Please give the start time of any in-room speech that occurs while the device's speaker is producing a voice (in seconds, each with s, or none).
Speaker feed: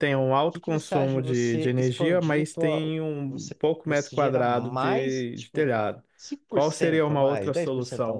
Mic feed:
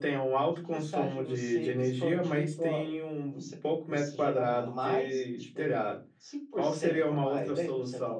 none